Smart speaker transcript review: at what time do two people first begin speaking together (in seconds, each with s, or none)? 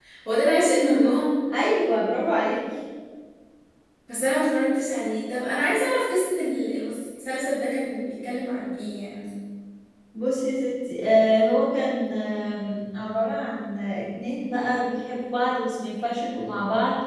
none